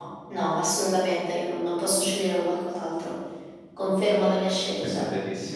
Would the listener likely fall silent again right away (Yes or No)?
No